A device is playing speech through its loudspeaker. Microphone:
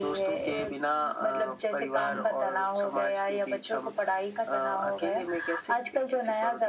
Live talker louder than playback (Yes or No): No